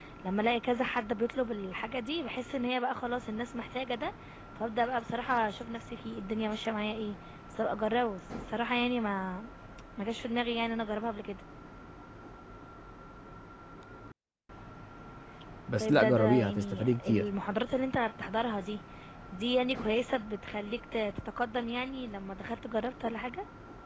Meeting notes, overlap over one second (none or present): present